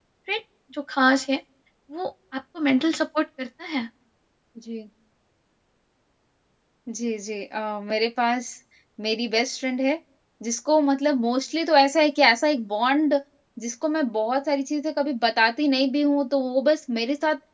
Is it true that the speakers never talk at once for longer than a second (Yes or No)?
Yes